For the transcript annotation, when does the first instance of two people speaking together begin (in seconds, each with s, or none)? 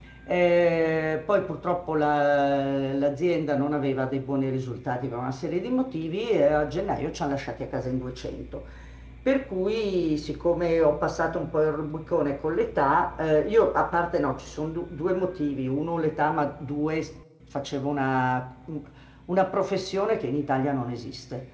none